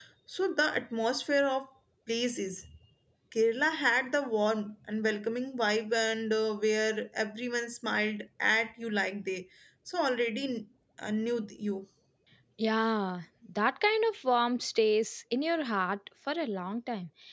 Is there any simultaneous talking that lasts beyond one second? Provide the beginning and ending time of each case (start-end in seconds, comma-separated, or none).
none